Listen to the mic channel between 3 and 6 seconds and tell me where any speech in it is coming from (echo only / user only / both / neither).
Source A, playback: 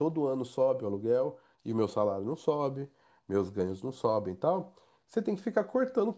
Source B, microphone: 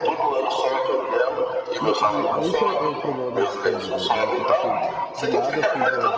both